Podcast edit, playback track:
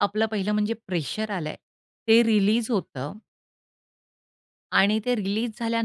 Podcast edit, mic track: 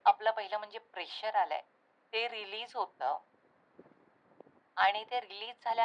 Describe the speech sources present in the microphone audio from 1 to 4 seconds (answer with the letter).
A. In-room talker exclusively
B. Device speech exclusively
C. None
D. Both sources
B